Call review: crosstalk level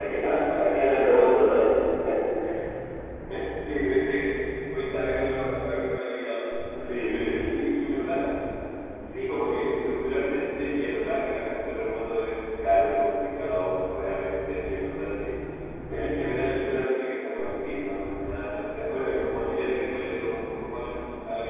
present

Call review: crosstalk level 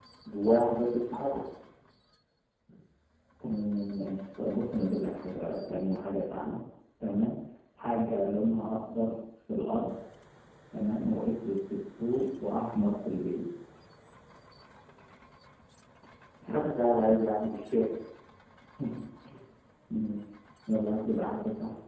none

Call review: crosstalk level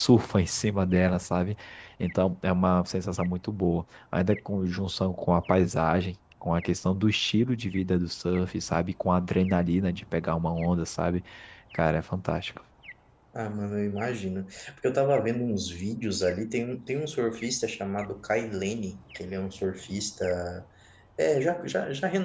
none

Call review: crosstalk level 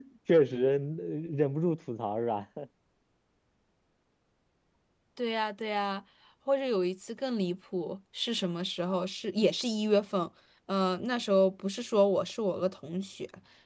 none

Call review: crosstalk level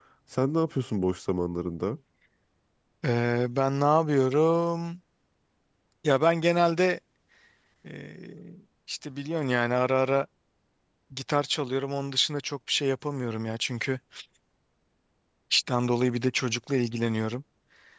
none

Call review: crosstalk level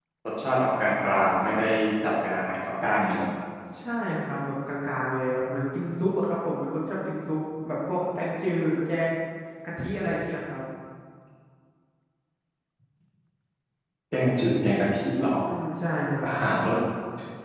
none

